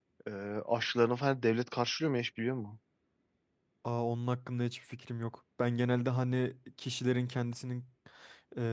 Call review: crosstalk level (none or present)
none